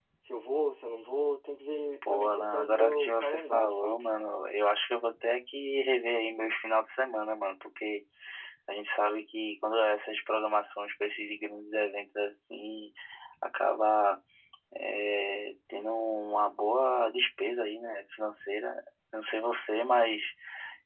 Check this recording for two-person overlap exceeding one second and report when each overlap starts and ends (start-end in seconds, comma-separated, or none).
2.1-4.1